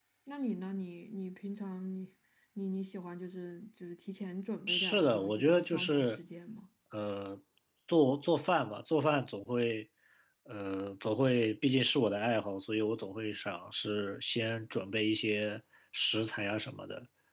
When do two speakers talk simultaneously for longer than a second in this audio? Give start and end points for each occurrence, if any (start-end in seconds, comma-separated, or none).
4.7-6.2